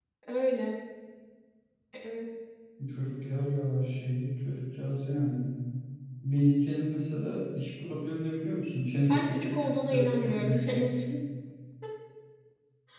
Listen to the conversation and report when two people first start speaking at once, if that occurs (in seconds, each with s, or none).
9.1 s